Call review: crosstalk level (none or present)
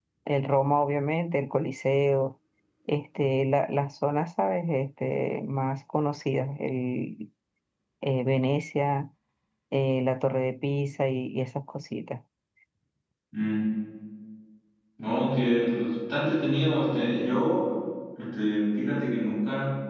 none